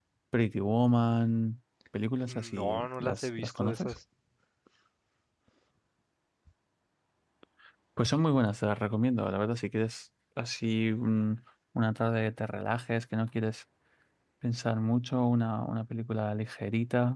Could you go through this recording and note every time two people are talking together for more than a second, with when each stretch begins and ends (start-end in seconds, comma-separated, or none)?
2.3-4.0